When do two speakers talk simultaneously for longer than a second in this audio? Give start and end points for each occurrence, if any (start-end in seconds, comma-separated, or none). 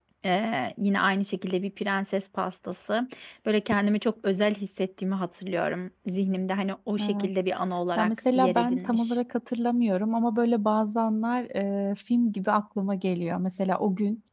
8.0-9.2